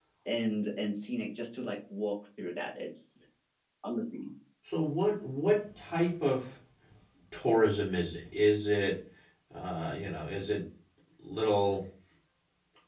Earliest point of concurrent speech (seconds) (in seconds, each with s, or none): none